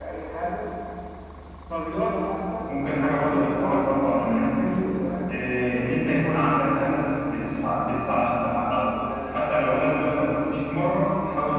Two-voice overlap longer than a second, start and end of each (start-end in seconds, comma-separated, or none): 3.0-4.7